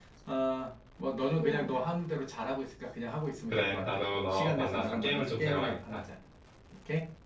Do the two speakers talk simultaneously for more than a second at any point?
Yes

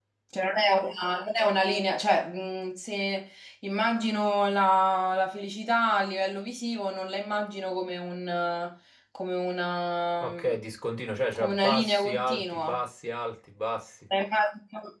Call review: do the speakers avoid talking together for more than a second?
No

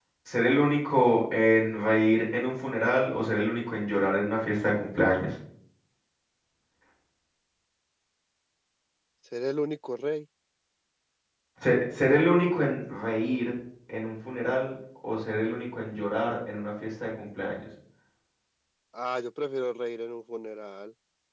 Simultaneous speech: No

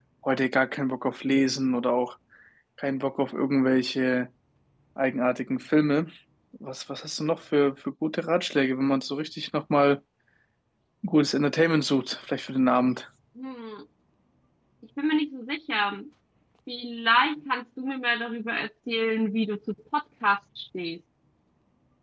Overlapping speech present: No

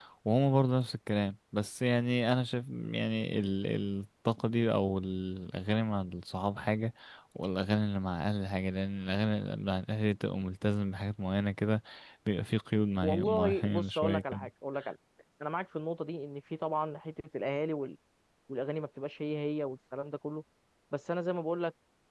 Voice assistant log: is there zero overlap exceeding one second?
No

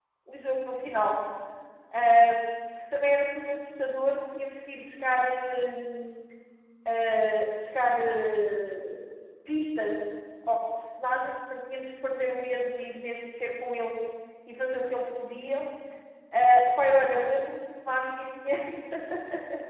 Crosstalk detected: No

